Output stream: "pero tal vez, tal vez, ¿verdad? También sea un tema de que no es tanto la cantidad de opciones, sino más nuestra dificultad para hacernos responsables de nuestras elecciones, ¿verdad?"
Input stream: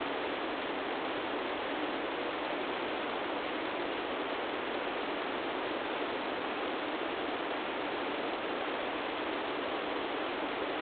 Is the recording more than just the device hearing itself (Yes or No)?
No